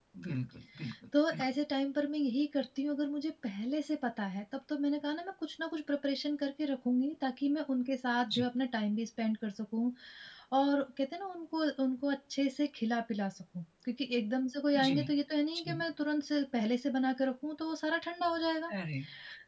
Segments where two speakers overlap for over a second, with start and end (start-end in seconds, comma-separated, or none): none